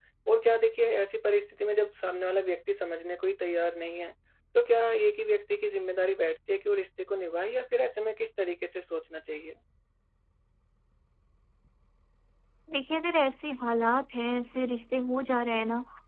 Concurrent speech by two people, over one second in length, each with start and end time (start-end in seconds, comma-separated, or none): none